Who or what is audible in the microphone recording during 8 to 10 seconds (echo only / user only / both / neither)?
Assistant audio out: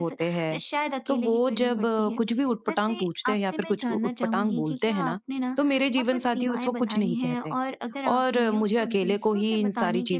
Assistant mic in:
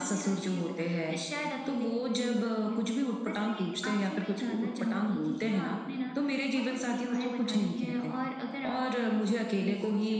echo only